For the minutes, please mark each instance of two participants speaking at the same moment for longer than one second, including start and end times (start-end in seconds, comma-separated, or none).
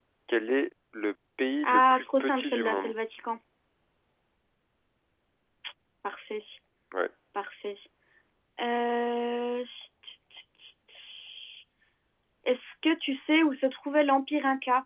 1.6-2.9